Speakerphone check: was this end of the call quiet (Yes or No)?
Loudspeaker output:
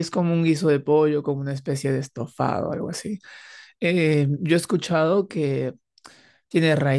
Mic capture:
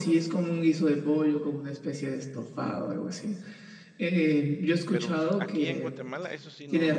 No